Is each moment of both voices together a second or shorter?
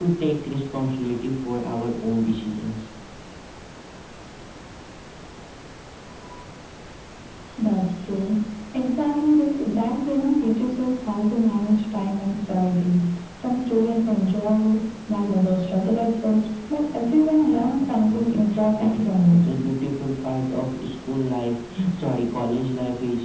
No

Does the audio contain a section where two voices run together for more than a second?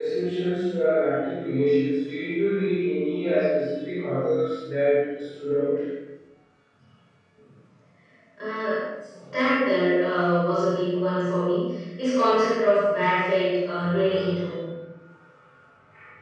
No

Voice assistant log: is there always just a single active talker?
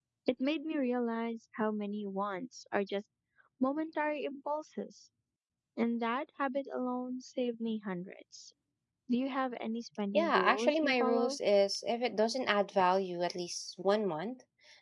No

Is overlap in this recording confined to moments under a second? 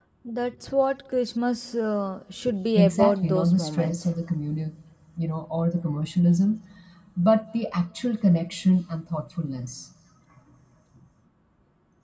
No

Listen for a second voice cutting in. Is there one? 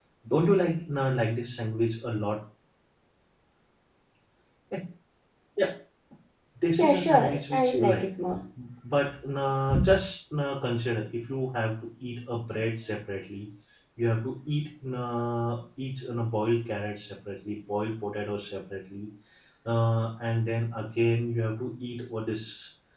Yes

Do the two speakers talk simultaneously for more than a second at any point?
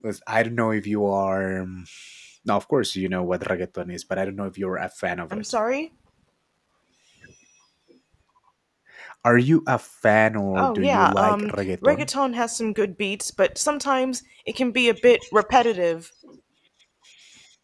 Yes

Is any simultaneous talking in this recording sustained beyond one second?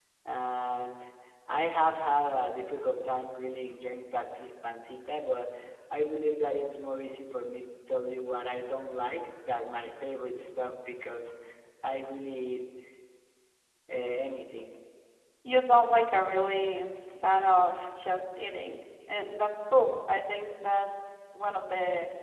No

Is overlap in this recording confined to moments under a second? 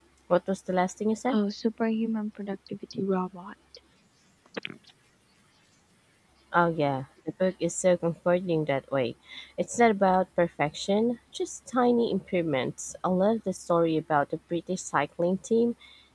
Yes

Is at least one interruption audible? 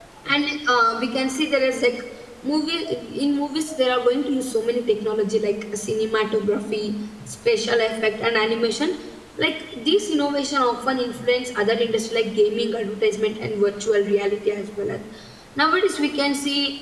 No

